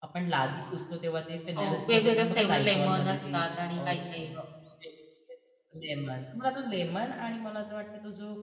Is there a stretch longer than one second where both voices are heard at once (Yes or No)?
Yes